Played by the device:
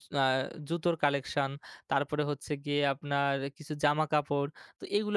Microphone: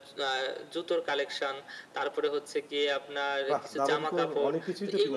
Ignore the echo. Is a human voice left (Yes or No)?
Yes